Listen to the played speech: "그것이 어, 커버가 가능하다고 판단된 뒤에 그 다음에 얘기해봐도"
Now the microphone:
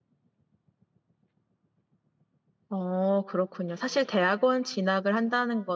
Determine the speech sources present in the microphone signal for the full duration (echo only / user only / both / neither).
user only